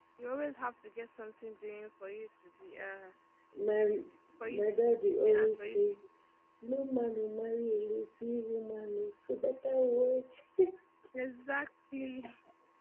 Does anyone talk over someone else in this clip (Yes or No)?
Yes